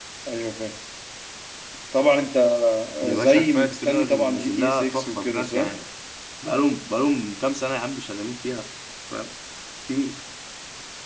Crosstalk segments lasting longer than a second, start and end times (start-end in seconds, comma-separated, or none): 3.0-5.7